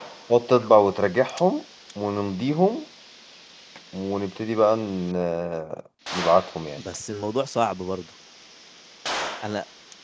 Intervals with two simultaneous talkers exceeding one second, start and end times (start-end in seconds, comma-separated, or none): none